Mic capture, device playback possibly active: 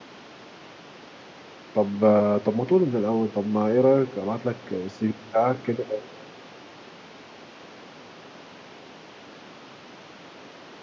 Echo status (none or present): none